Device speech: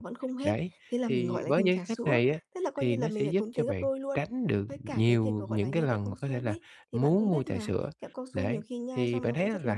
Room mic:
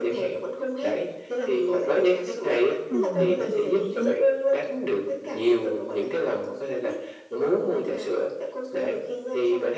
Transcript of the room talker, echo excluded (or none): Ừm, hợp lý đấy.